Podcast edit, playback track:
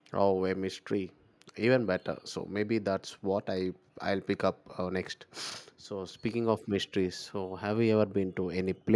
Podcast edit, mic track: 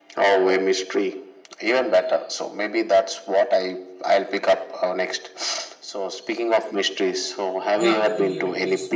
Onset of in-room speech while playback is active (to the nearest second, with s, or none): 8 s